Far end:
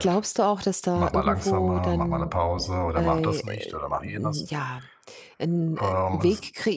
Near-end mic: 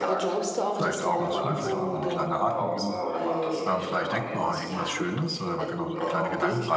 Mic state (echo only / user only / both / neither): both